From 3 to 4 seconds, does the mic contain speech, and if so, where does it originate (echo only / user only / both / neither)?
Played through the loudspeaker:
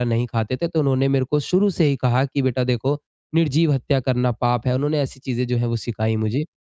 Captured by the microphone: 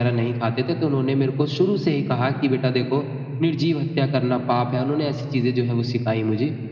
echo only